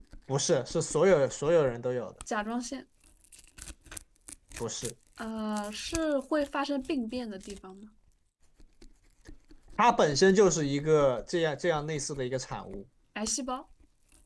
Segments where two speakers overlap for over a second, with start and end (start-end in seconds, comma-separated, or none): none